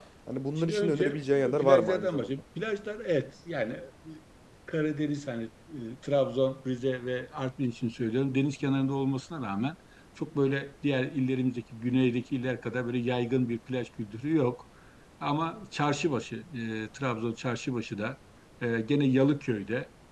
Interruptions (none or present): present